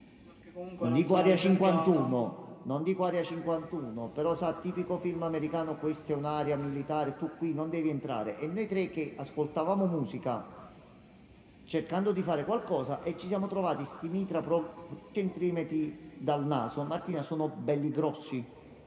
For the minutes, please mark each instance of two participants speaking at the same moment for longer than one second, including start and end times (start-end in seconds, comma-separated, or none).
0.8-2.1